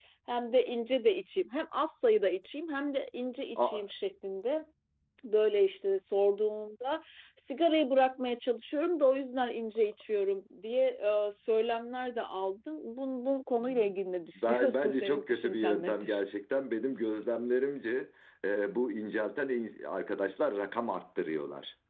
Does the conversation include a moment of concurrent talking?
Yes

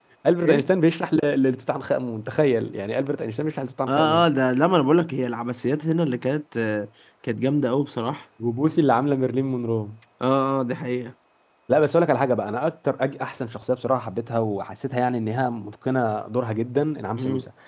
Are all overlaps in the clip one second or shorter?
Yes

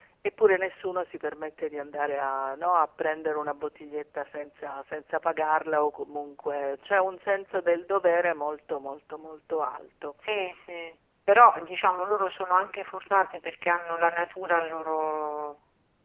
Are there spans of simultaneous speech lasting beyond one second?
No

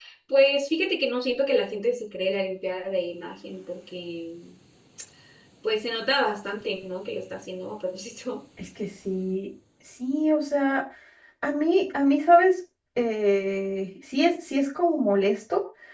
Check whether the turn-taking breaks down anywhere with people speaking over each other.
No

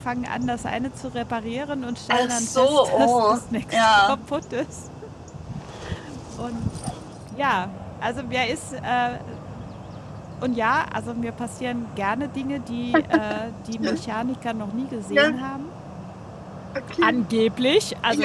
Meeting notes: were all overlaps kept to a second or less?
No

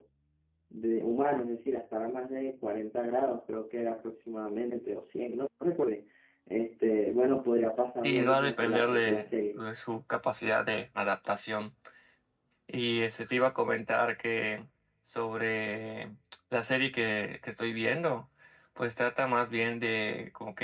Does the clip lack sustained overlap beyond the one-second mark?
No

